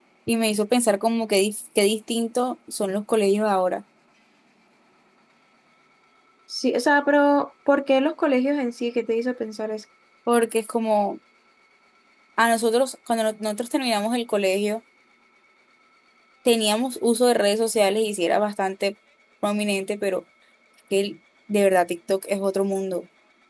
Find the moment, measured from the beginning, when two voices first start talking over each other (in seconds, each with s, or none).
none